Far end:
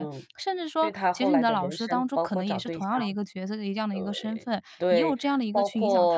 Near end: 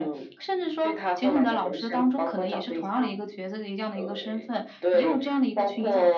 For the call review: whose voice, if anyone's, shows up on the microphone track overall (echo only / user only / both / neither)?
echo only